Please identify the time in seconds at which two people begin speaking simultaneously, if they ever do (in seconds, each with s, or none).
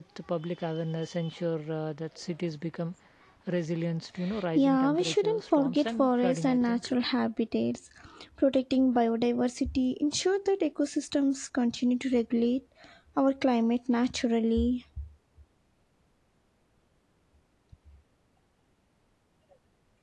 4.5 s